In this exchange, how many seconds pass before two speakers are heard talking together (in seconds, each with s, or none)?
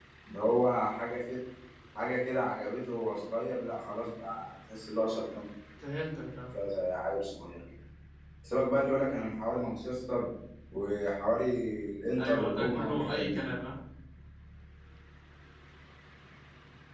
12.2 s